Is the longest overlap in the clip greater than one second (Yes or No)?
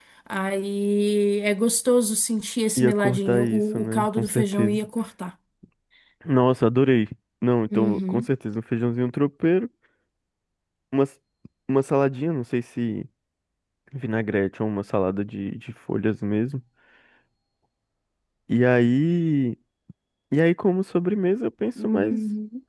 Yes